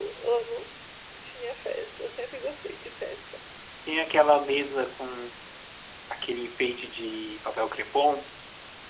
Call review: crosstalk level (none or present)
none